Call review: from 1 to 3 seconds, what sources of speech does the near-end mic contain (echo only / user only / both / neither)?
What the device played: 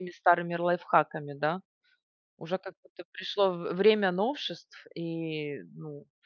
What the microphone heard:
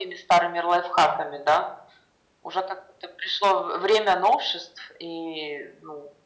echo only